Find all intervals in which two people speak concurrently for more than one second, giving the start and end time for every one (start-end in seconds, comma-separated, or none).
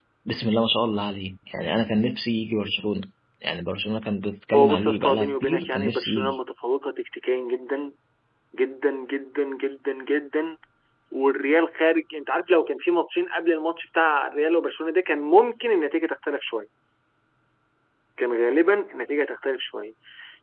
4.5-6.3